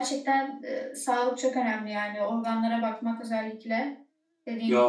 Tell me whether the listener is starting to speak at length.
Yes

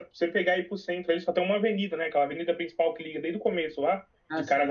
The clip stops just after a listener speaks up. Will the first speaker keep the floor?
Yes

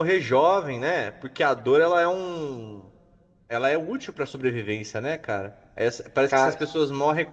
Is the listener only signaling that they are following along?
Yes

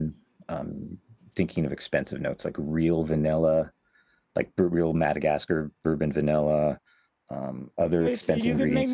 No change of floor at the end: No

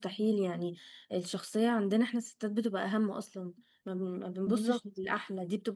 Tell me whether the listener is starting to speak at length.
No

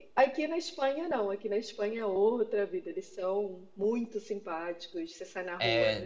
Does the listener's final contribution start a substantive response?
Yes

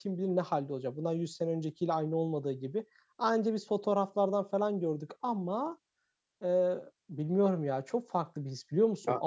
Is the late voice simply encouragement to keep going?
Yes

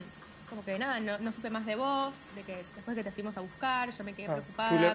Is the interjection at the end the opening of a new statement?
Yes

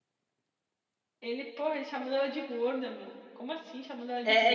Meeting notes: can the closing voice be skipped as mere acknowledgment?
No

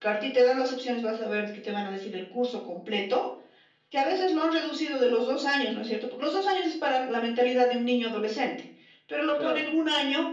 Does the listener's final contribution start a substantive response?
No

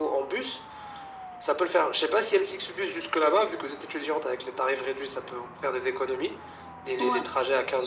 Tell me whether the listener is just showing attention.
Yes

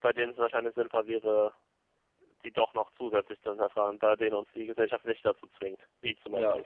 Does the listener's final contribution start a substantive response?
Yes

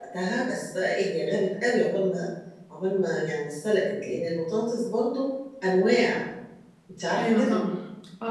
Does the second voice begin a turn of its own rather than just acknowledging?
Yes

